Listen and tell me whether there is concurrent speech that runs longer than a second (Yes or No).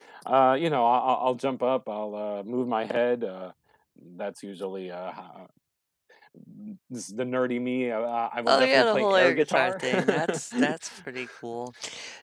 Yes